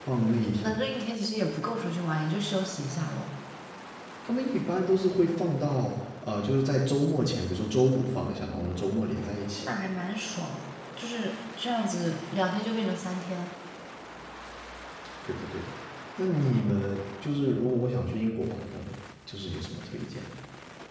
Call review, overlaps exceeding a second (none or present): none